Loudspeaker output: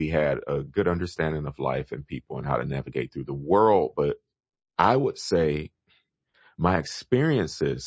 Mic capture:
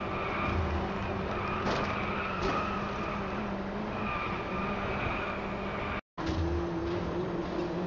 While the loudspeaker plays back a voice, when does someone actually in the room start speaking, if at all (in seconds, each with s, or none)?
none